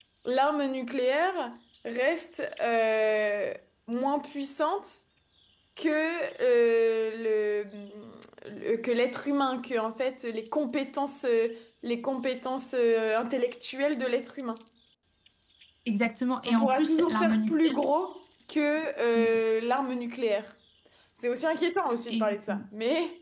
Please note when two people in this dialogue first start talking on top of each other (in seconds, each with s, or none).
16.5 s